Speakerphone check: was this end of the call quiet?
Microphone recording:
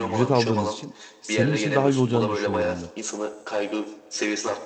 No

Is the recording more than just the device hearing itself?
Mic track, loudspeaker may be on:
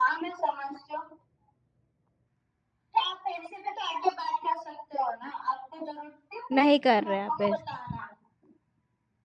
Yes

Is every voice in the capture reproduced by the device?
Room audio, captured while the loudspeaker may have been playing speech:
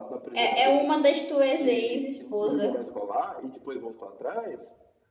No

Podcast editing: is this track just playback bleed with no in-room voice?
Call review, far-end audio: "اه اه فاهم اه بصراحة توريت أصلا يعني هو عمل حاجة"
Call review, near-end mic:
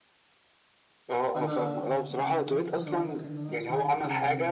No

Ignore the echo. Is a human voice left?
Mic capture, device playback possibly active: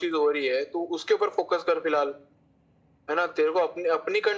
No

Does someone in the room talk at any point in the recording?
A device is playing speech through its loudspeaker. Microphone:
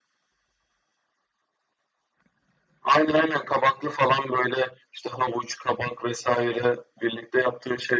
No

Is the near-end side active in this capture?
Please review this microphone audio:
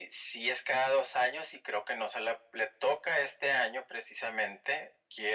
No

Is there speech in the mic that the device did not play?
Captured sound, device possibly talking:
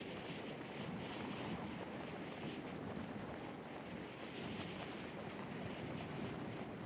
No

